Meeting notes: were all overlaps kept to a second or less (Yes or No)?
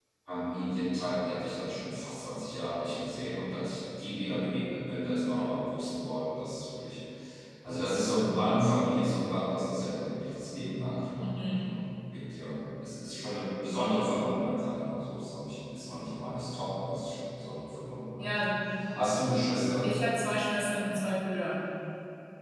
Yes